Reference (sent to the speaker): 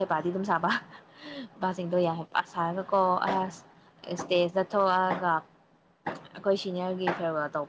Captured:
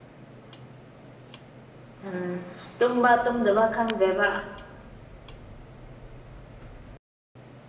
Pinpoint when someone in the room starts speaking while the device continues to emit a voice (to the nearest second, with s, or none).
2 s